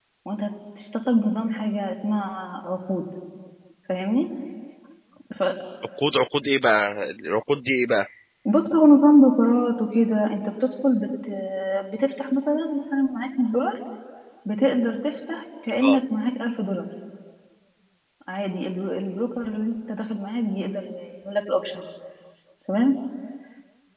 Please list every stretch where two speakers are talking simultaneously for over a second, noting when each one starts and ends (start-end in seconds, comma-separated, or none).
none